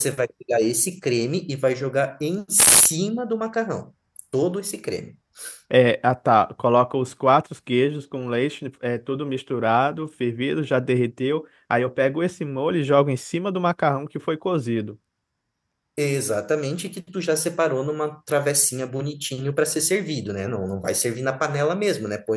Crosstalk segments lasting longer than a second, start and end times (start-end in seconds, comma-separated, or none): none